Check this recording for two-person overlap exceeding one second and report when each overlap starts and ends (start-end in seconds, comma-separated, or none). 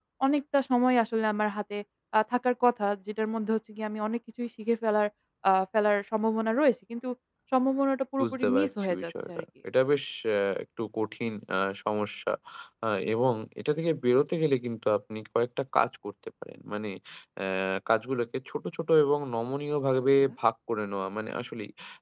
8.2-9.4